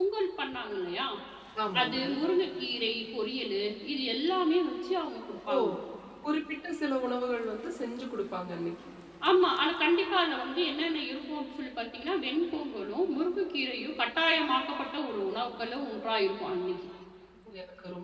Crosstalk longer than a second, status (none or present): none